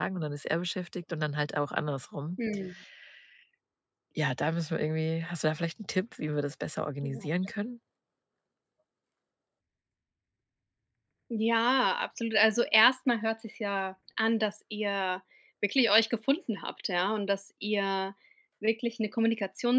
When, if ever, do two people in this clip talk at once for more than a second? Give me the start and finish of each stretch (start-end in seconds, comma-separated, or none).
none